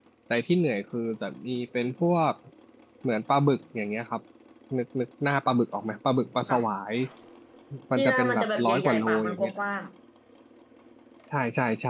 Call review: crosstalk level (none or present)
present